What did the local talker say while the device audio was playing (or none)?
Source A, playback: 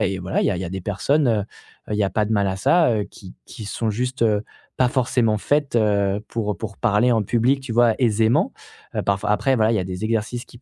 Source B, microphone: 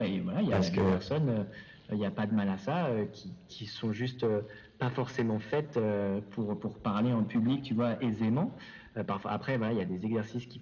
parce que,